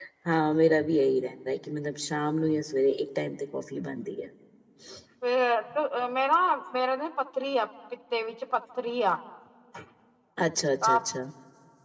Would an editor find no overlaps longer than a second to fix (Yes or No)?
Yes